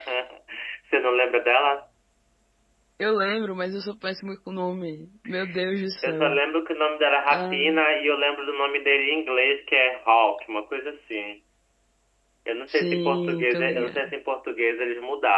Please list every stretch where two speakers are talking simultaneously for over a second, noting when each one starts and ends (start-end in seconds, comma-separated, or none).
12.7-14.0